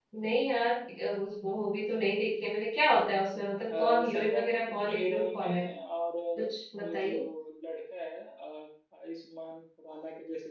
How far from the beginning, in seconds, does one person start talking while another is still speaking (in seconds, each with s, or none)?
3.7 s